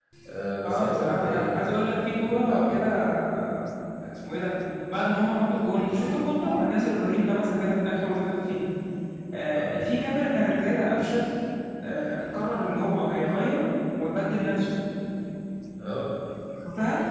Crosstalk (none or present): present